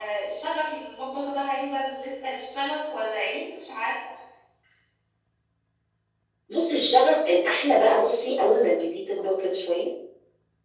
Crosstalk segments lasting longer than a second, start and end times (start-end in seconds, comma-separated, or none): none